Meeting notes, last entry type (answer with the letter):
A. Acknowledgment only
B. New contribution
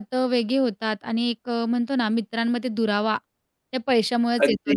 B